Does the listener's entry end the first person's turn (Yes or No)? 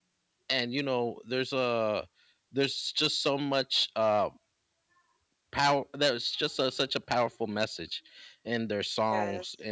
No